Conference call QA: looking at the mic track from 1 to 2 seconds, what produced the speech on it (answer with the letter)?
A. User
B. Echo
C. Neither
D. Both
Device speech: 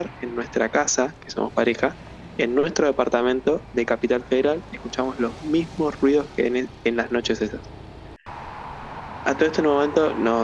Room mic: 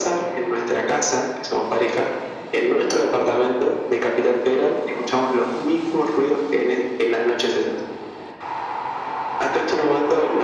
B